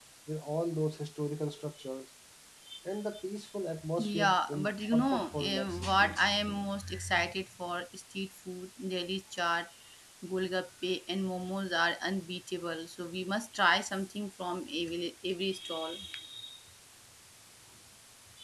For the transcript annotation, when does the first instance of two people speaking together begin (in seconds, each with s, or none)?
4.0 s